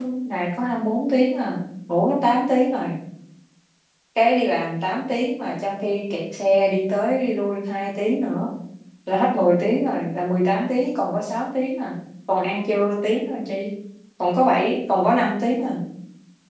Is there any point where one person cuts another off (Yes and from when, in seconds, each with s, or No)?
No